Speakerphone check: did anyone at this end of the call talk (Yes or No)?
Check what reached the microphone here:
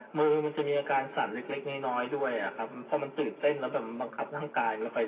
No